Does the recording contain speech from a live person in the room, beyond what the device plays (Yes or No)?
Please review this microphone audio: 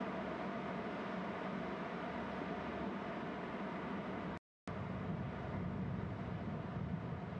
No